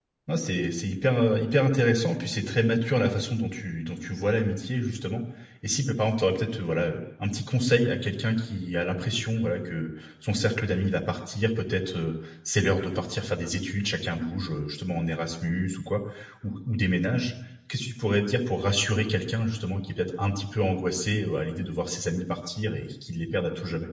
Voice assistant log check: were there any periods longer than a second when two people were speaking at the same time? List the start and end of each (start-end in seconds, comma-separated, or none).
none